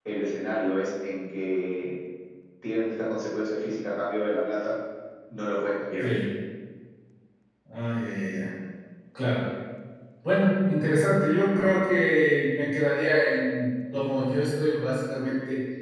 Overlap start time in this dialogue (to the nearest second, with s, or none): none